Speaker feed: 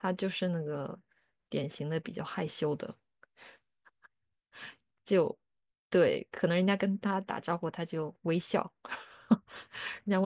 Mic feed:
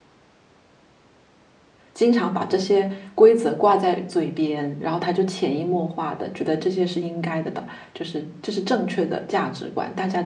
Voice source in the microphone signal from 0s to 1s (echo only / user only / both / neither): neither